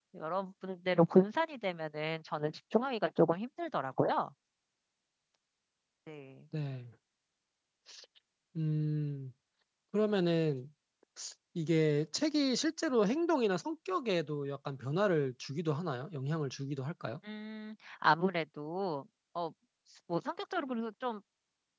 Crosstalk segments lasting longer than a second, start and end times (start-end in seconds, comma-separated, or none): none